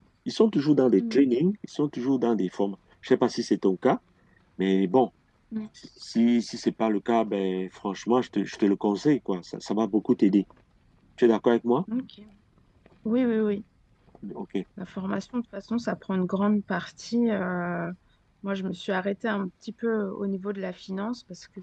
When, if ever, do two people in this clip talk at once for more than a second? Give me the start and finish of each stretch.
none

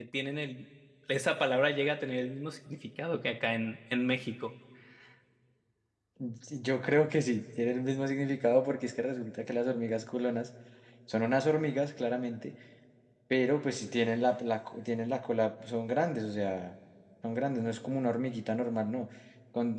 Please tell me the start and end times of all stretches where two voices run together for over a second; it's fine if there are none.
none

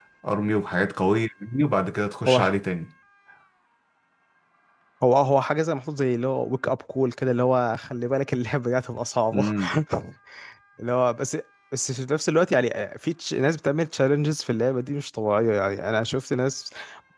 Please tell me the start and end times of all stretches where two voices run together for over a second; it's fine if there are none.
none

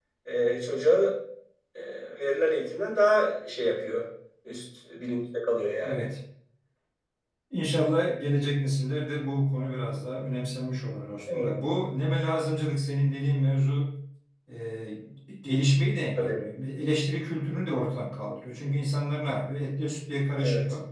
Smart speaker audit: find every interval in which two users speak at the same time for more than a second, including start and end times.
none

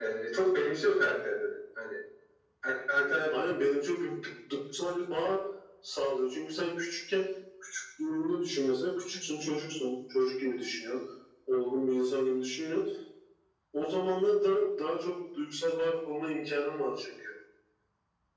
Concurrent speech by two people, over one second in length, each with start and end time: none

